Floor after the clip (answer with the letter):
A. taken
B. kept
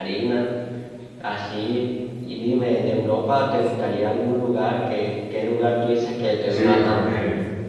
A